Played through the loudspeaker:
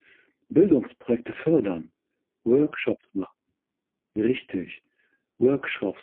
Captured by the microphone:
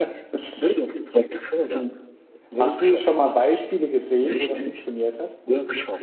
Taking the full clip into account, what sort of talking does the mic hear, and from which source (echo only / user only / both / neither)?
both